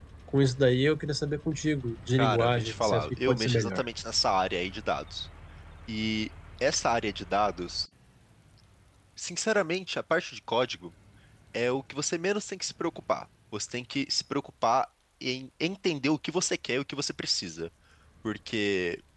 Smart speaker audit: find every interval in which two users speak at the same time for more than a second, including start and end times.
2.2-3.8

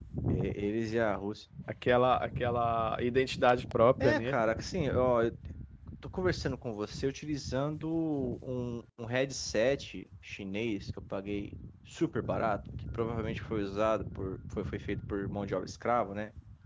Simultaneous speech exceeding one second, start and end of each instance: none

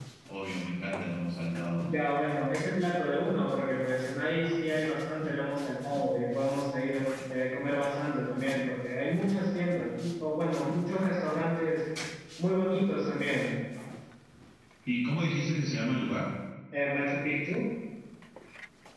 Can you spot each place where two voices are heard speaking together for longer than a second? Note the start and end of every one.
none

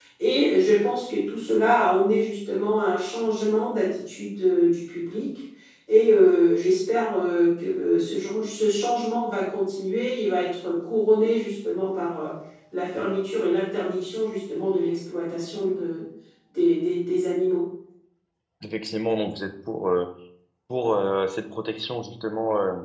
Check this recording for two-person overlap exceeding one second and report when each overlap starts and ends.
none

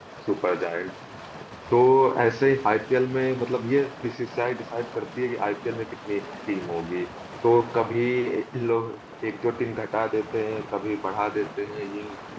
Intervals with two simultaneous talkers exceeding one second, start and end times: none

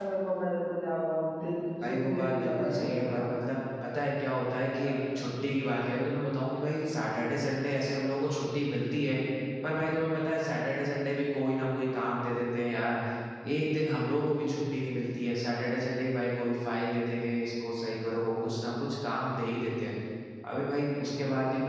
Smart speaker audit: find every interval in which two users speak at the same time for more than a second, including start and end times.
1.8-3.3

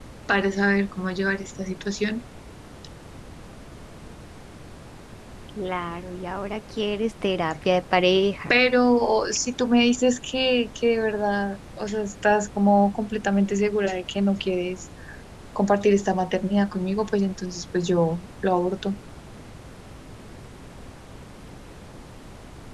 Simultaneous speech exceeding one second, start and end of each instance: none

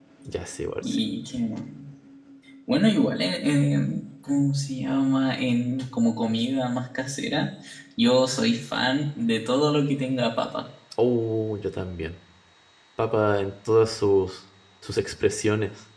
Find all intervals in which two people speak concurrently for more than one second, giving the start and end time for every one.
none

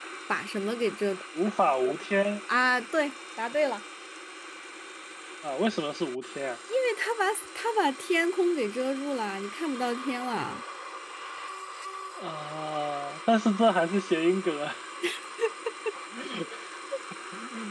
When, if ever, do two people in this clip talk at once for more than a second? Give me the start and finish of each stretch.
none

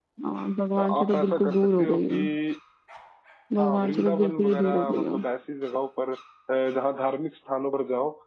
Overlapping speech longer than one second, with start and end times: 1.0-2.2, 3.6-5.2

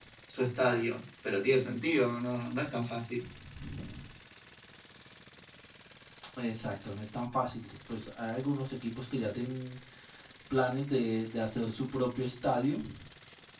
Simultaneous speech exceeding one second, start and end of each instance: none

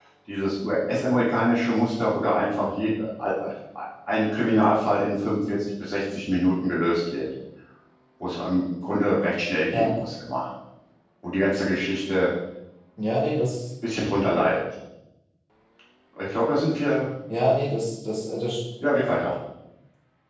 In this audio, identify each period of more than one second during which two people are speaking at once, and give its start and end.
none

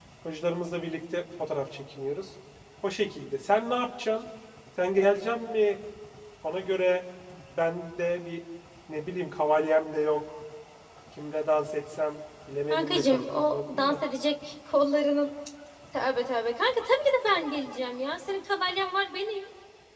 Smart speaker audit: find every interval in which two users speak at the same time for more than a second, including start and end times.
12.7-14.0

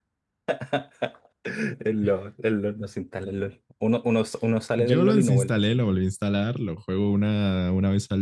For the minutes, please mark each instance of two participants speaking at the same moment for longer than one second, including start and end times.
4.8-6.0

